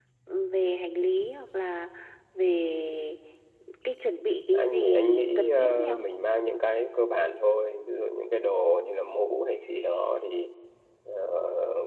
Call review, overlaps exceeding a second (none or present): present